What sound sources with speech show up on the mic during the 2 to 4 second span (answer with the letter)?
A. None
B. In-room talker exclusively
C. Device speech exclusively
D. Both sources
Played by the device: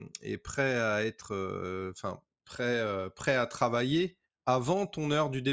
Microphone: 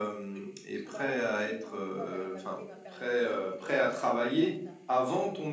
D